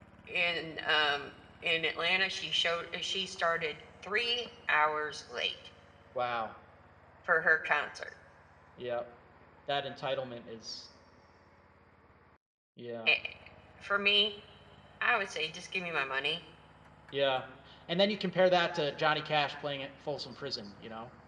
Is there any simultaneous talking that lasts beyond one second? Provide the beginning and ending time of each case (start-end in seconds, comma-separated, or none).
none